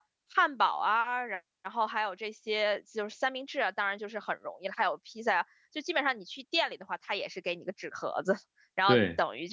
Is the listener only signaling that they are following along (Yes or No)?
Yes